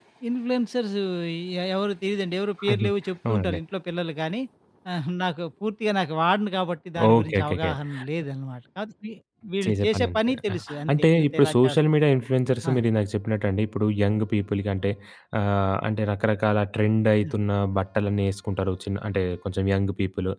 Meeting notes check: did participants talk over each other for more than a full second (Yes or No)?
Yes